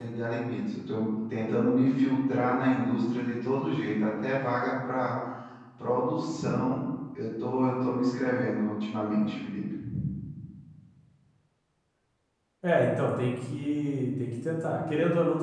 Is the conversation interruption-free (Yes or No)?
Yes